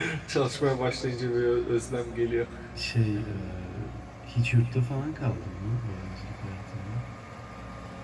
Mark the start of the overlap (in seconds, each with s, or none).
none